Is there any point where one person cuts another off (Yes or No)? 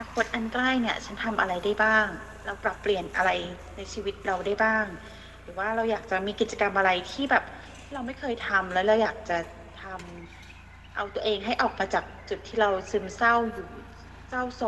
No